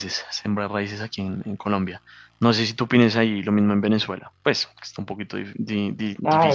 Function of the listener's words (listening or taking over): taking over